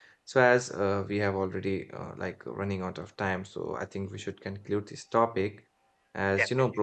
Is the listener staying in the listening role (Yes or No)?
Yes